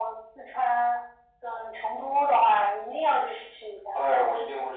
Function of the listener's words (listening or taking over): taking over